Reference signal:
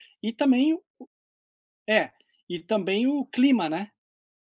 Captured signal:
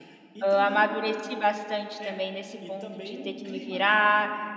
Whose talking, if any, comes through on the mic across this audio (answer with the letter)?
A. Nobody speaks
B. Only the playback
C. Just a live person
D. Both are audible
D